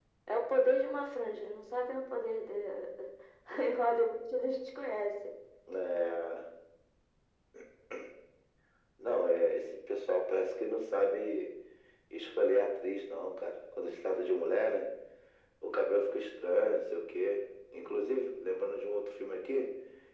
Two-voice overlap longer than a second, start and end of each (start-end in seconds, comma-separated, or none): none